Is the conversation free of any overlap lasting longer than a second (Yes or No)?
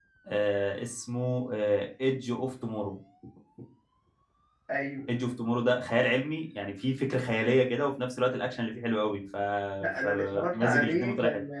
No